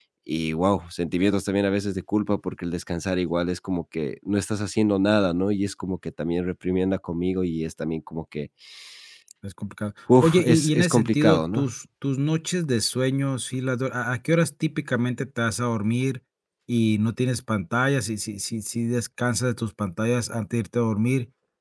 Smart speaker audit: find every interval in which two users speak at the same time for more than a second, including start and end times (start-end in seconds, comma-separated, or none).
10.2-11.6